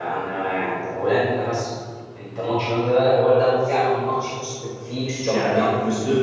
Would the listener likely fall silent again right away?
No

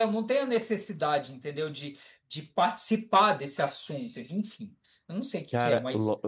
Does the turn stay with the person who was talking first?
No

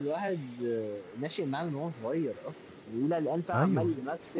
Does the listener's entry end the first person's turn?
No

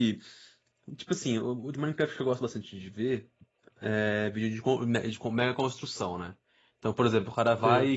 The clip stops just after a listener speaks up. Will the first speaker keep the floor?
Yes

